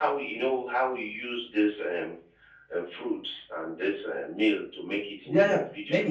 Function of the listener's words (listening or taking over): taking over